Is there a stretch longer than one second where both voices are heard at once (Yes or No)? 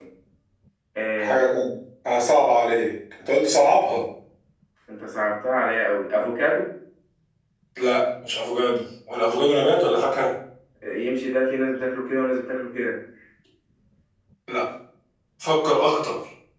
No